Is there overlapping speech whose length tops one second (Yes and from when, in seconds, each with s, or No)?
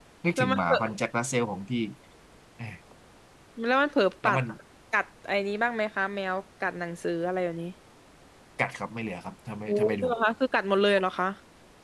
No